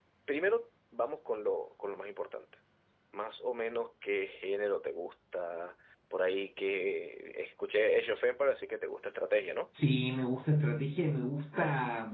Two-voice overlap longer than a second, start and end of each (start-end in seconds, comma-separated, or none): none